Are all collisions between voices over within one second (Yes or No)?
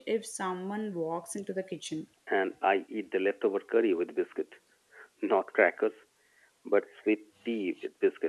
Yes